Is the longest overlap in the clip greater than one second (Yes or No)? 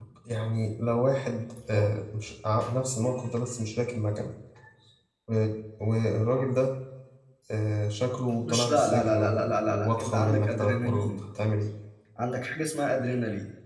Yes